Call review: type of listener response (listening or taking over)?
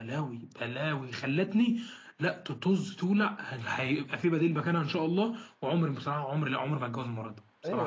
taking over